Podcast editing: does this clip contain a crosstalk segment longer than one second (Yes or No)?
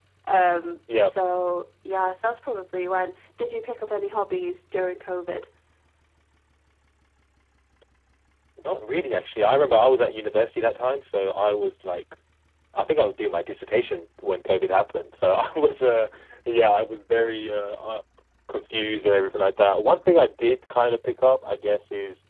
No